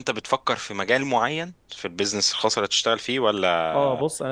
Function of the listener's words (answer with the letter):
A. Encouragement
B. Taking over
B